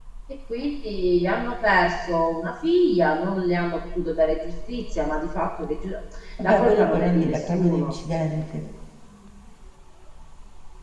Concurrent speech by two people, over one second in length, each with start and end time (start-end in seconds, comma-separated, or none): 6.4-7.9